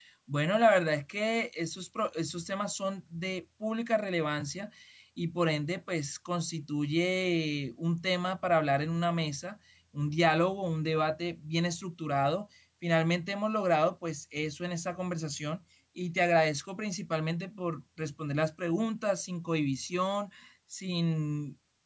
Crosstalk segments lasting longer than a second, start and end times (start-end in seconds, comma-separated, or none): none